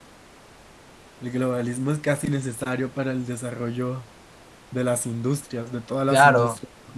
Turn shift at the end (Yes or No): Yes